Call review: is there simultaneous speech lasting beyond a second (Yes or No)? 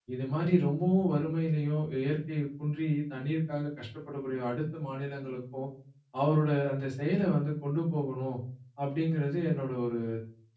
No